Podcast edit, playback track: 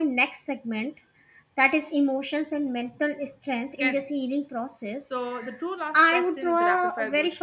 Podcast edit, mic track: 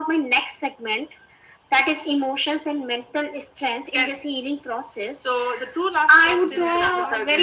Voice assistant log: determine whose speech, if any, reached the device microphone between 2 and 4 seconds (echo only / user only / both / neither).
echo only